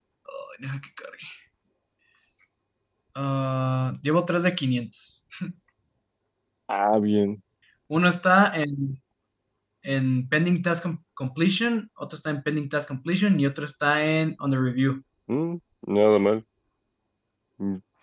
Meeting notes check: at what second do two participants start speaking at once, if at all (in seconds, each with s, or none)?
none